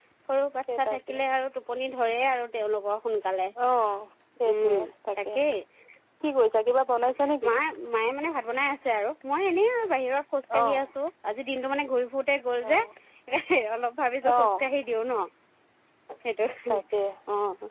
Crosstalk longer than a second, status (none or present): none